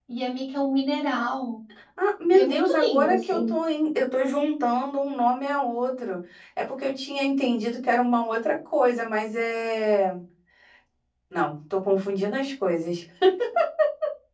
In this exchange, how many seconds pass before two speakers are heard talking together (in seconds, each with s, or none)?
2.3 s